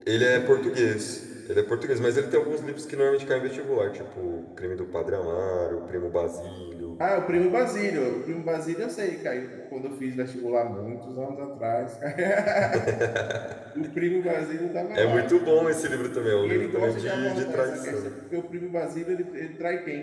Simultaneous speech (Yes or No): Yes